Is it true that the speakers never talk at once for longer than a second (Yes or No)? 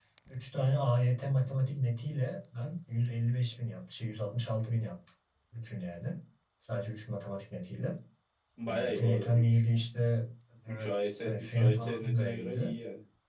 No